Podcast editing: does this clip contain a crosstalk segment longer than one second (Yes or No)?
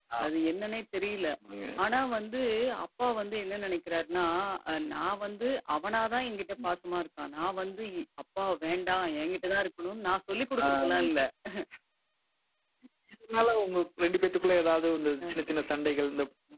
No